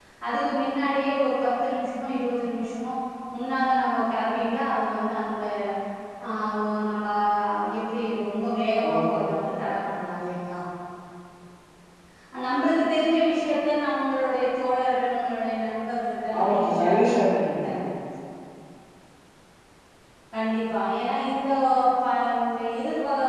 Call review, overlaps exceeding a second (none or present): present